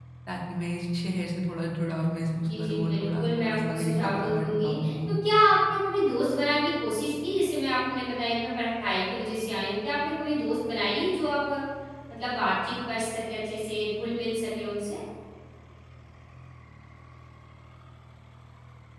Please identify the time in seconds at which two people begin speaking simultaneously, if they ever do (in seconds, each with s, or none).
2.5 s